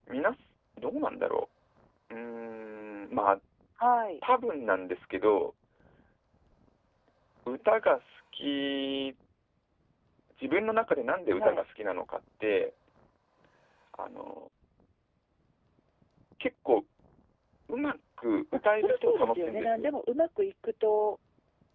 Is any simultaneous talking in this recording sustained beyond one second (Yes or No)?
Yes